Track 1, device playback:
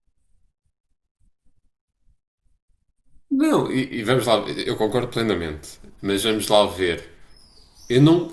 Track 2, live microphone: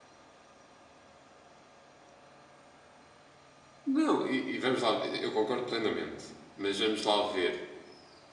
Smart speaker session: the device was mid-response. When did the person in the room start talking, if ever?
none

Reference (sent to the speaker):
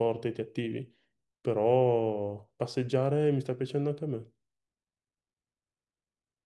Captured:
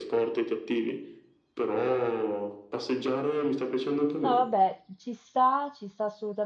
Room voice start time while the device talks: 4.2 s

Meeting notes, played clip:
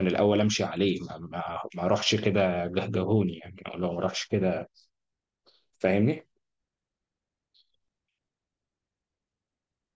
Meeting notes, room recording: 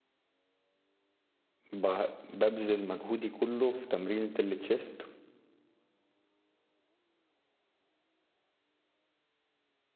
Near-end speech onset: 1.7 s

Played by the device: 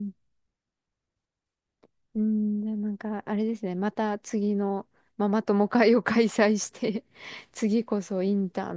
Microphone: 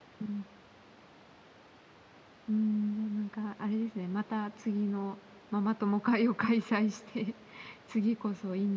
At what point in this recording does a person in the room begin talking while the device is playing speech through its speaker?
none

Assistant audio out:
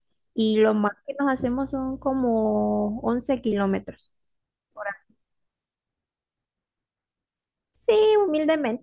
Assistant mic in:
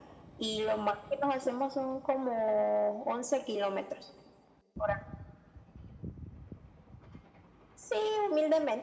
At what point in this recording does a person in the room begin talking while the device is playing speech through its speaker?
none

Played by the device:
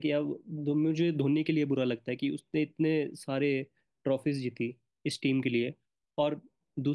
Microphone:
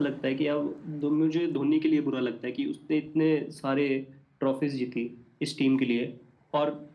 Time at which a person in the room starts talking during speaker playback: none

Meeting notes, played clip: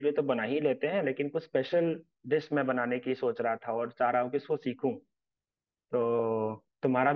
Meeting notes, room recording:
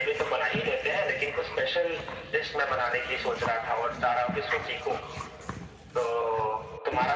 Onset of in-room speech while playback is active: none

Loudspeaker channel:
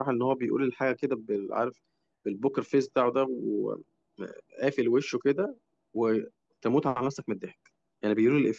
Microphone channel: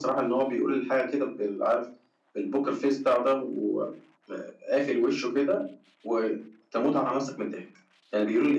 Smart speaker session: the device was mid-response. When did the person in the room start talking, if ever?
none

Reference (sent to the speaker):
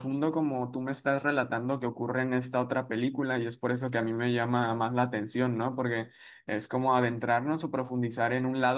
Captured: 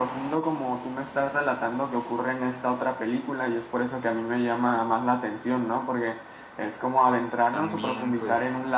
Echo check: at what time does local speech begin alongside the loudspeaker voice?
7.5 s

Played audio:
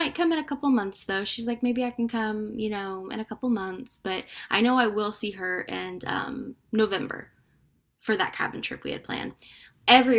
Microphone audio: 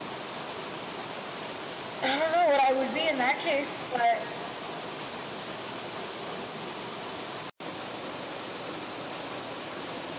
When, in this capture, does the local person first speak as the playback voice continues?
2.0 s

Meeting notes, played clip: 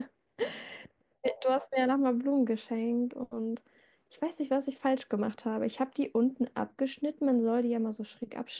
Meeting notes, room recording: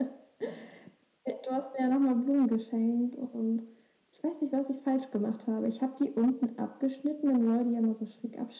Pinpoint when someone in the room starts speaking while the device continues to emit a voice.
none

